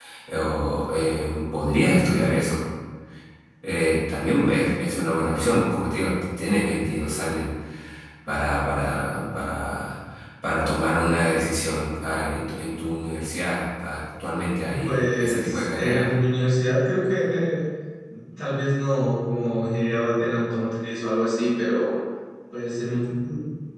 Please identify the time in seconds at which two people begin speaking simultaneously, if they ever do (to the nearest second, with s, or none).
15 s